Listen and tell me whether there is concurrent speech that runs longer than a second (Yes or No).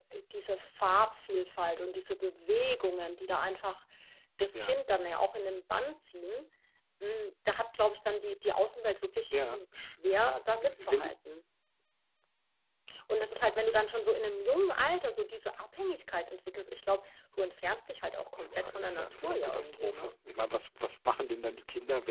Yes